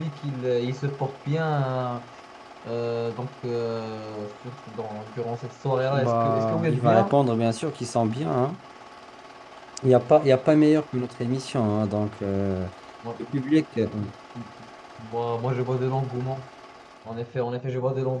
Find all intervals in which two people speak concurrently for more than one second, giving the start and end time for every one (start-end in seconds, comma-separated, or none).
5.9-7.2